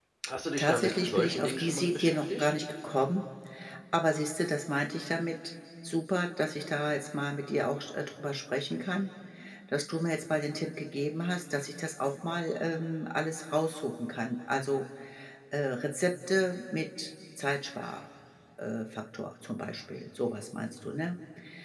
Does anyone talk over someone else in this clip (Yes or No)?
Yes